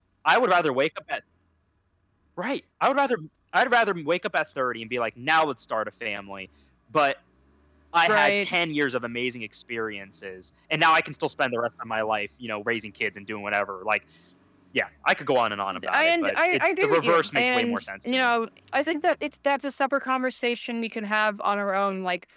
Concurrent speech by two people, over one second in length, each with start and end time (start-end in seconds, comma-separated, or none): 15.9-18.3